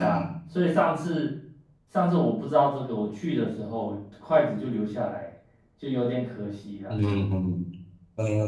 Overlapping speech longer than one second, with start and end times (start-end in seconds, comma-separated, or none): none